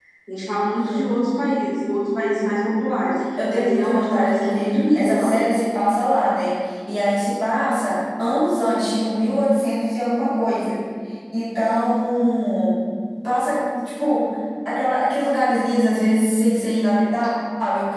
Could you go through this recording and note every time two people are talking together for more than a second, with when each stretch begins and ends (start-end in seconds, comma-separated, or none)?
3.5-5.3